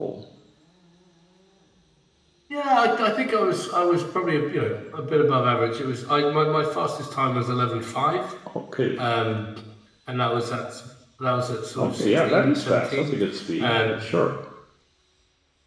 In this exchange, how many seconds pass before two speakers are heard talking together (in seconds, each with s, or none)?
11.8 s